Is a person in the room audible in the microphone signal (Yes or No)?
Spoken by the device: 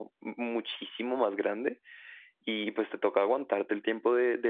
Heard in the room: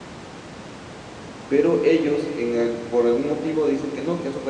Yes